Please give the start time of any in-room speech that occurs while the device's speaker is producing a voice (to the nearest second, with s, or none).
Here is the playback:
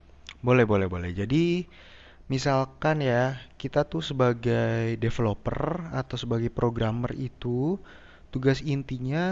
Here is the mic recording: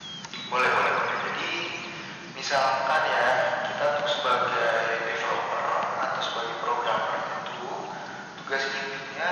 none